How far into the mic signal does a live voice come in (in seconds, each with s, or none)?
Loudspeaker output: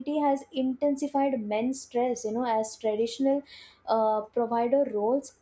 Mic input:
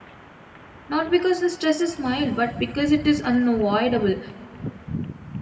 0.9 s